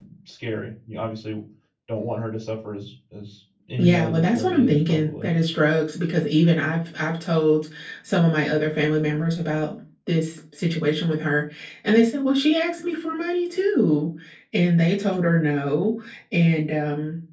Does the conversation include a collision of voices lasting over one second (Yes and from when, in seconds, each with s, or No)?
Yes, from 3.8 s